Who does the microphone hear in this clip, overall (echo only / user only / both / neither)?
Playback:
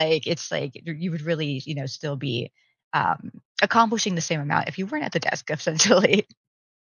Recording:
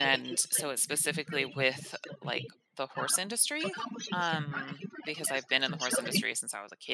both